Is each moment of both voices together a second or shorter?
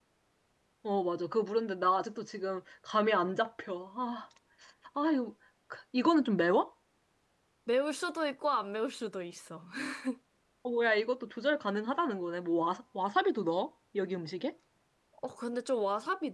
Yes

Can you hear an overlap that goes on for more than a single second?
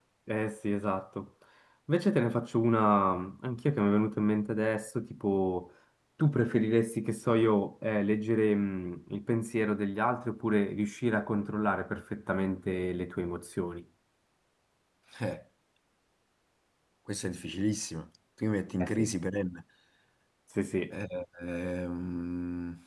No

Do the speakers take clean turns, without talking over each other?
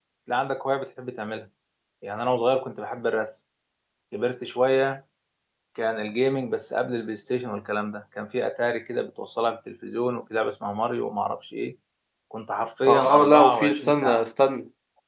No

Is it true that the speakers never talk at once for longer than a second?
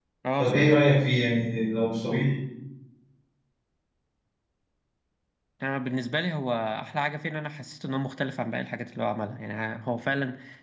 Yes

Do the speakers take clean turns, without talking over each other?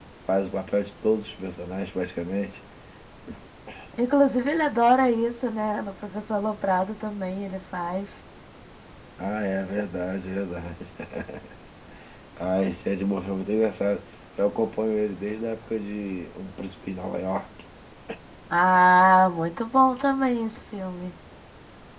Yes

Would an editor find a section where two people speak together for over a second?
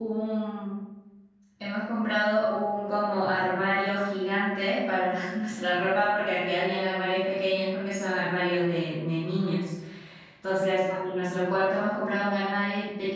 No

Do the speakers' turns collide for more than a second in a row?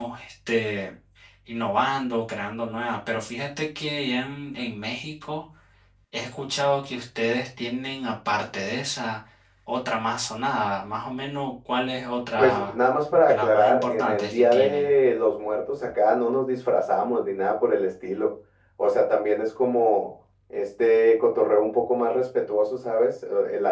Yes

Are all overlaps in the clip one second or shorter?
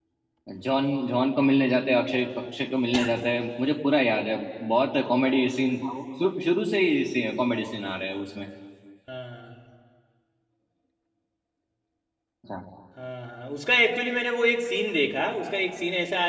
Yes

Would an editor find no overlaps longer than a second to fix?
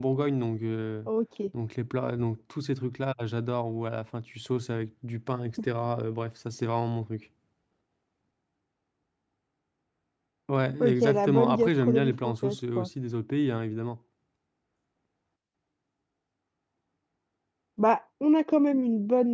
No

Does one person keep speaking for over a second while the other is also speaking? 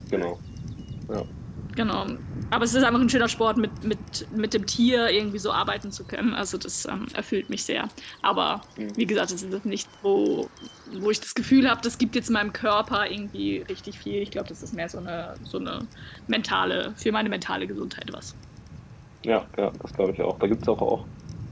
No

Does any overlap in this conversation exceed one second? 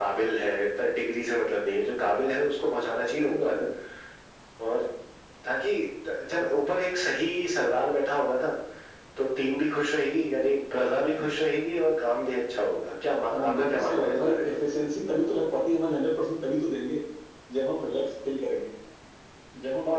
Yes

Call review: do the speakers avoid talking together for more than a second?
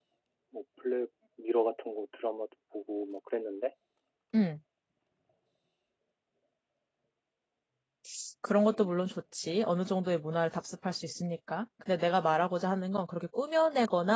Yes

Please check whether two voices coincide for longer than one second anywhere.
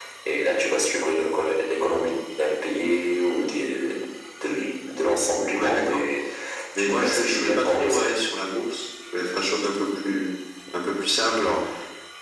Yes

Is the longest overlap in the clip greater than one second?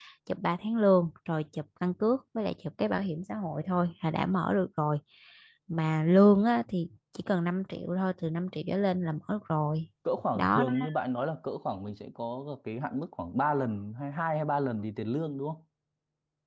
No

